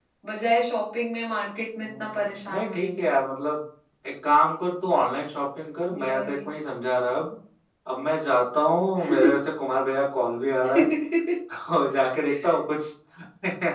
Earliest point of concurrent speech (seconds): 2 s

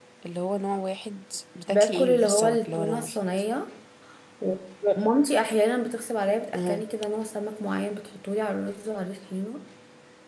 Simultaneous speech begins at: 2 s

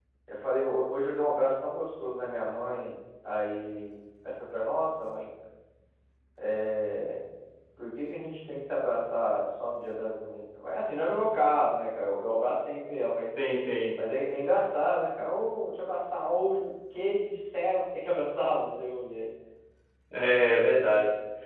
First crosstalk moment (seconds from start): none

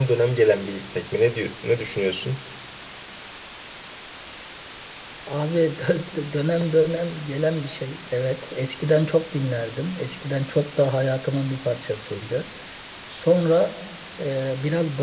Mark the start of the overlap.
none

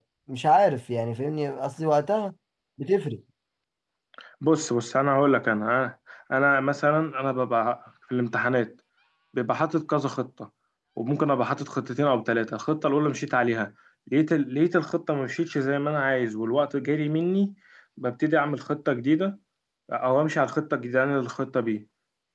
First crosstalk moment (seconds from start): none

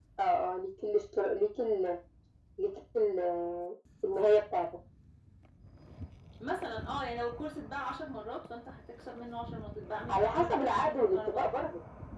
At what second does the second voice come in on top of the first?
10 s

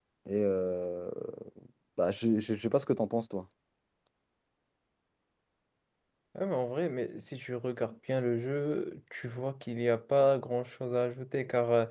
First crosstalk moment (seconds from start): none

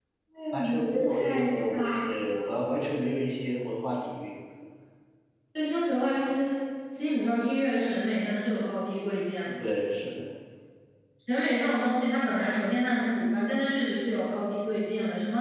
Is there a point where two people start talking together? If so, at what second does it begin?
1 s

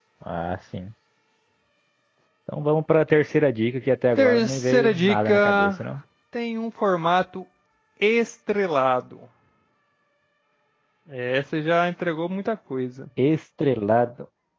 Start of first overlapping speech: 4 s

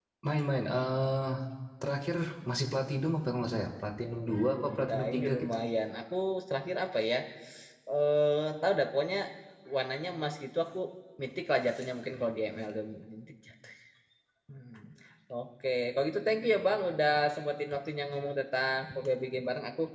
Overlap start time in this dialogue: 4 s

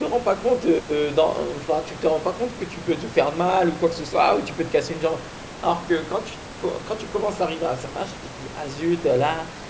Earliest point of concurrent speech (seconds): none

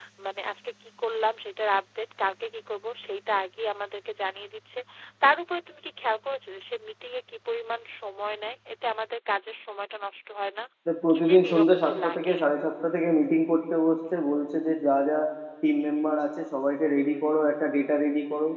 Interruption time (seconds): 11 s

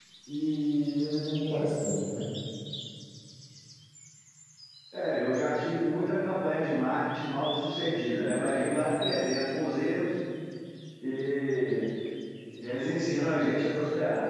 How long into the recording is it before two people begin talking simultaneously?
none

